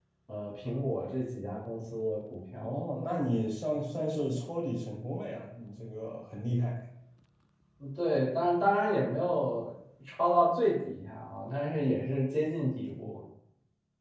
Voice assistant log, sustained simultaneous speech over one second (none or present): none